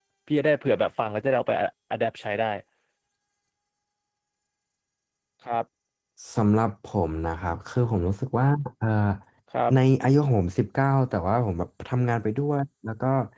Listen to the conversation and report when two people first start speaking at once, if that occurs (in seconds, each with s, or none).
none